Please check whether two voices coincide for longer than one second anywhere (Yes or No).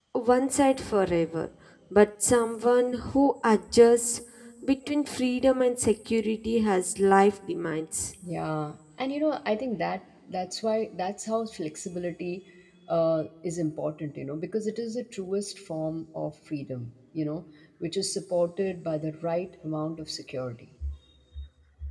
No